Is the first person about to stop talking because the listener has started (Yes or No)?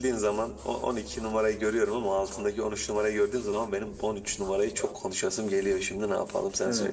Yes